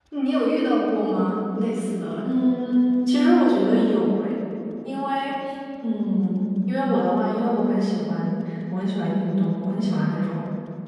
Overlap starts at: none

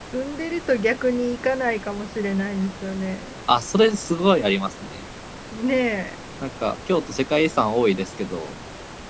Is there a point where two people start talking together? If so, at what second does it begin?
none

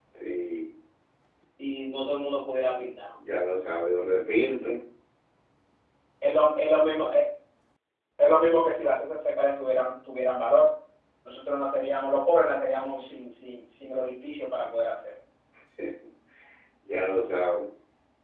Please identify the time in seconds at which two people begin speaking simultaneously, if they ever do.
none

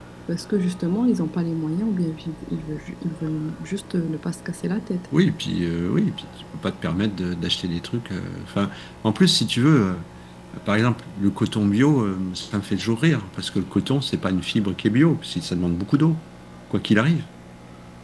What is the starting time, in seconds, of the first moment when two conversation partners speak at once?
none

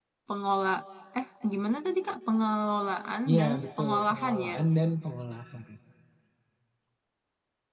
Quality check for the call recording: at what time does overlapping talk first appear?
3 s

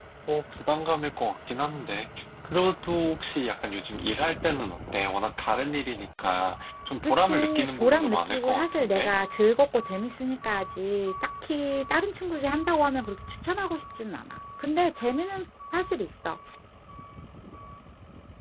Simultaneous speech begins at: 7 s

